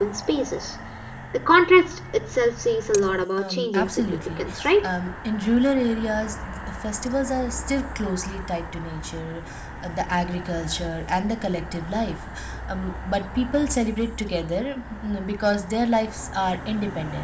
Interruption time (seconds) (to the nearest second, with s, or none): 3 s